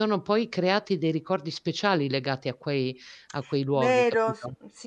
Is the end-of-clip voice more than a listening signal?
Yes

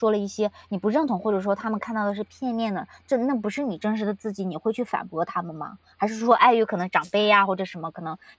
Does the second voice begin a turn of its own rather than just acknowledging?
No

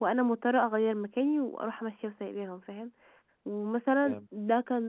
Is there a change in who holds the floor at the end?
No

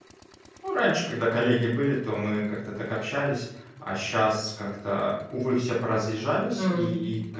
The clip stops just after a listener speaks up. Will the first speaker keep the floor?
Yes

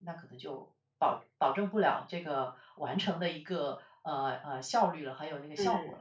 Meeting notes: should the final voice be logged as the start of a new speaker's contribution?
Yes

